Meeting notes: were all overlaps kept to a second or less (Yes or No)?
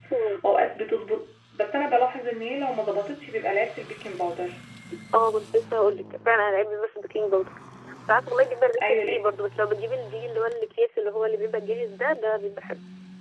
Yes